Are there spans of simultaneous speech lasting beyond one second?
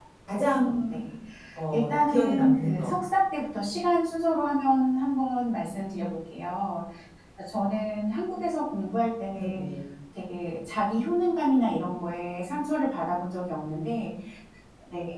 Yes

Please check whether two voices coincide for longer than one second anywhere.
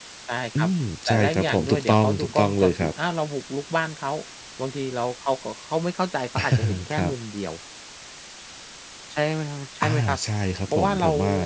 Yes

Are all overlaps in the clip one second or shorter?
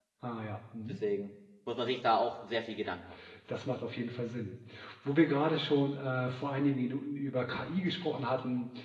Yes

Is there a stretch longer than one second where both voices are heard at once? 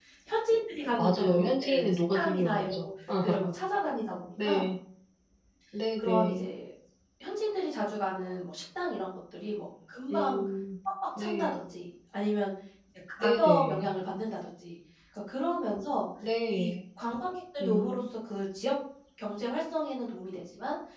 Yes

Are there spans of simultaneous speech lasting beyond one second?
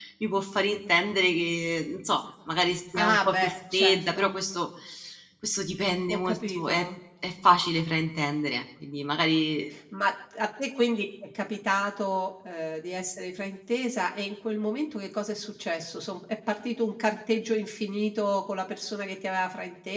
Yes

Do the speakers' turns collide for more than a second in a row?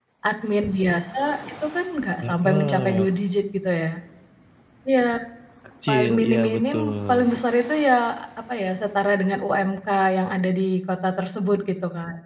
Yes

